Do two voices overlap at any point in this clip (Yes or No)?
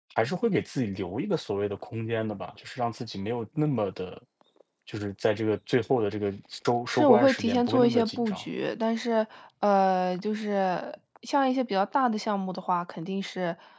Yes